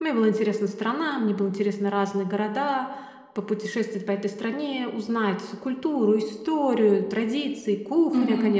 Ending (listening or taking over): taking over